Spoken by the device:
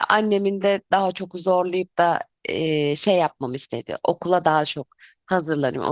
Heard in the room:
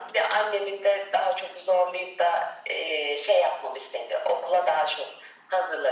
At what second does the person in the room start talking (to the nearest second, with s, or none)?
none